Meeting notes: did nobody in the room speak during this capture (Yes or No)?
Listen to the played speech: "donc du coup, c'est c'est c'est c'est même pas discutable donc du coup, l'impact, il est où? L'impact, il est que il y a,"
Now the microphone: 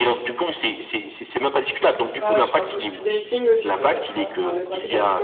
No